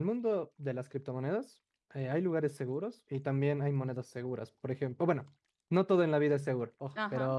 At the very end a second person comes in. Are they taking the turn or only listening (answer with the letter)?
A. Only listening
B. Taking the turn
A